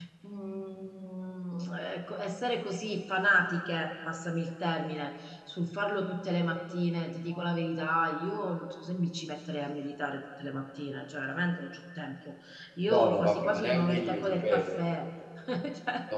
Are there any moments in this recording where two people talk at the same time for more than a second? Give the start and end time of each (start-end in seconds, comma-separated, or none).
12.9-14.7